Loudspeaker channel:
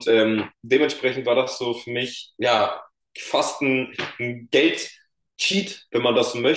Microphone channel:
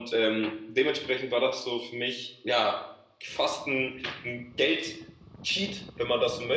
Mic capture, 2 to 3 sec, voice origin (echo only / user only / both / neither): echo only